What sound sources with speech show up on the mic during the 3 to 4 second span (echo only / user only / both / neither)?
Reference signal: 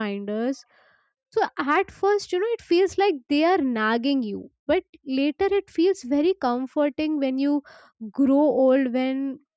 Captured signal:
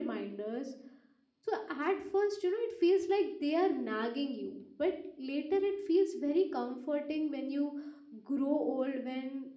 echo only